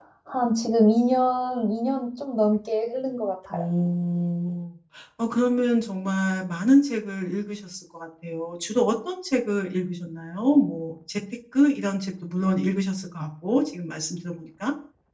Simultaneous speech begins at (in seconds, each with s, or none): none